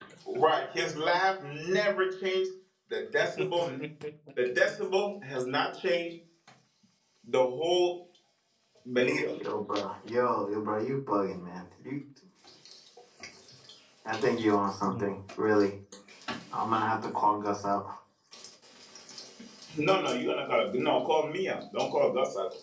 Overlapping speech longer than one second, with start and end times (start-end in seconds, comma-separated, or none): none